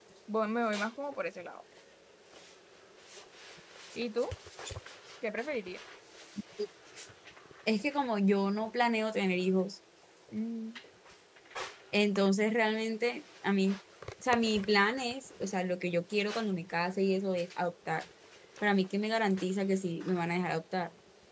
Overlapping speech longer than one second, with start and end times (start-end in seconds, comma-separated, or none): none